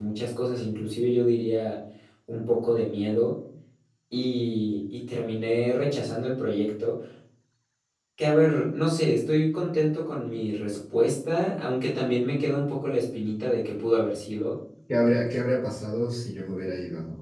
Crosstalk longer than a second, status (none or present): none